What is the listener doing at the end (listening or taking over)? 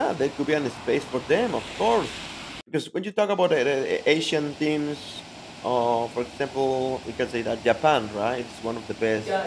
taking over